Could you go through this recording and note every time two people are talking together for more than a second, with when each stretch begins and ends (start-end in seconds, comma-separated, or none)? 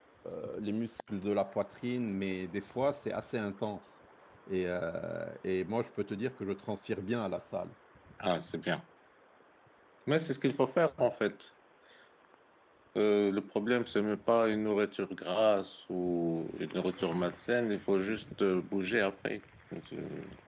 none